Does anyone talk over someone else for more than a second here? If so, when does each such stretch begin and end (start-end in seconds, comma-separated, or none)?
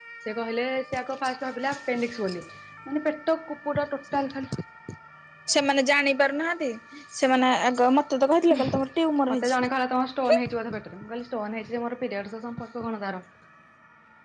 none